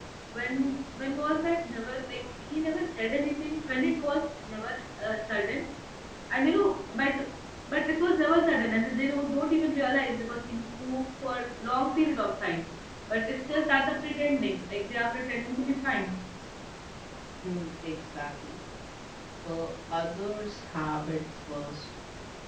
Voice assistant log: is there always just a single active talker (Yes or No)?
Yes